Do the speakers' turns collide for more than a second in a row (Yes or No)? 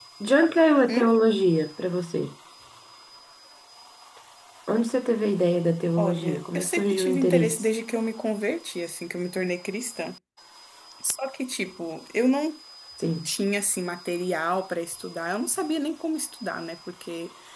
Yes